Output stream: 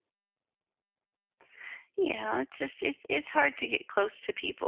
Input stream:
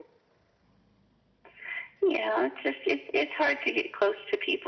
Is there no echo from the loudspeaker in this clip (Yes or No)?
No